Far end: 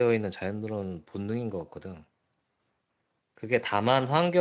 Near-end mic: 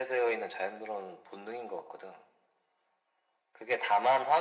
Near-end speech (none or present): none